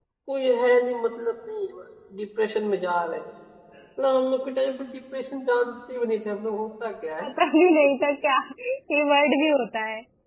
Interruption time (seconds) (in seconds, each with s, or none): none